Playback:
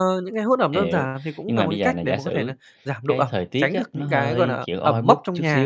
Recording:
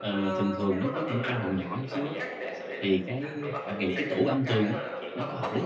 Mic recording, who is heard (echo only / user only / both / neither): both